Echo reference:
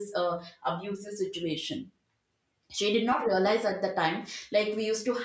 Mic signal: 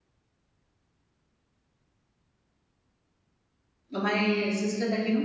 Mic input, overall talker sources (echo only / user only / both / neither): user only